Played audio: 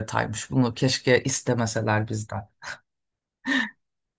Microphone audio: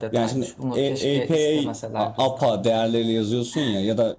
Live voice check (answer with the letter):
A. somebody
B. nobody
A